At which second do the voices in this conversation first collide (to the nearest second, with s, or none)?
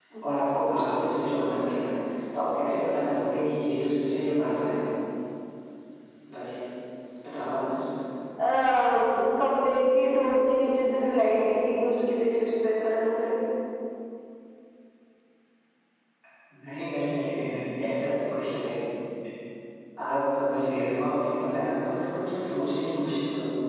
none